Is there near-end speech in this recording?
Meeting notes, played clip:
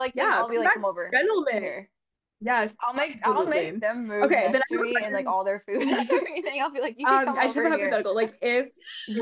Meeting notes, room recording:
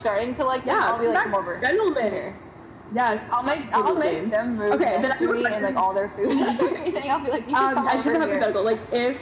No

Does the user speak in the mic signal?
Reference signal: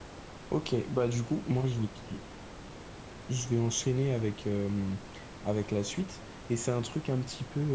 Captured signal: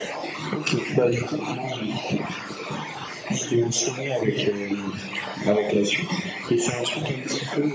No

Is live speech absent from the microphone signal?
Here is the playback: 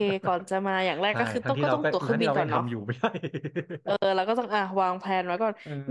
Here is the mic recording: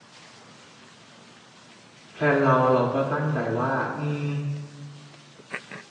No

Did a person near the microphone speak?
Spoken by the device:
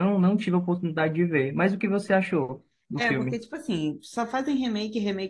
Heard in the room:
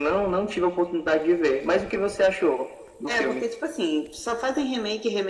No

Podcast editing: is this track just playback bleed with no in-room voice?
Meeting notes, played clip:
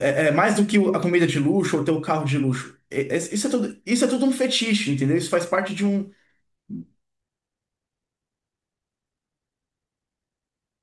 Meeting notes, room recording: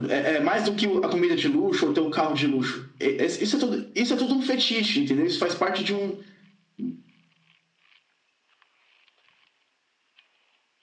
Yes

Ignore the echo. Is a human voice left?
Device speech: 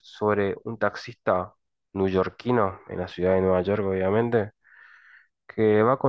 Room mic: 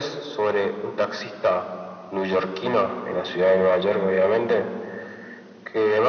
No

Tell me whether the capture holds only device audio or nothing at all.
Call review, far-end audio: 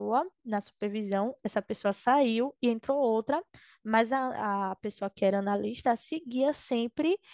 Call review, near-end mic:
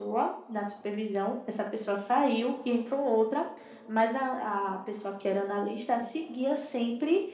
Yes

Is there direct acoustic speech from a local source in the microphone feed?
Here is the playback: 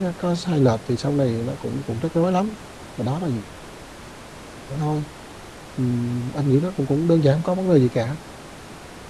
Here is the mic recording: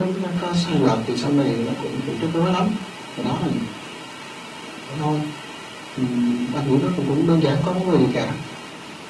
No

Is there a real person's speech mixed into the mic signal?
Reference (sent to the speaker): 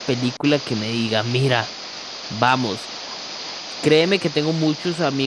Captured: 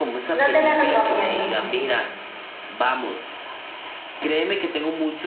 Yes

